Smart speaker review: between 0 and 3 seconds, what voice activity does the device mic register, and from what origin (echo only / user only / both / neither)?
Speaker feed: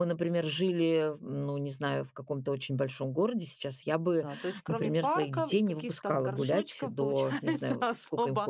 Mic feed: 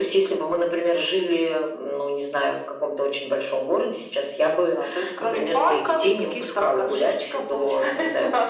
echo only